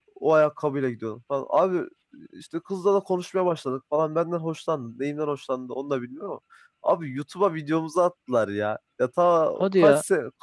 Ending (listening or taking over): listening